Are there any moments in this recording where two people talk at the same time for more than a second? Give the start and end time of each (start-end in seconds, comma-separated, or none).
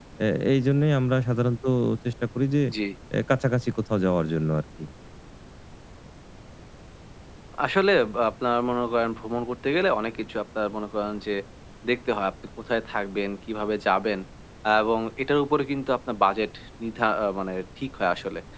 none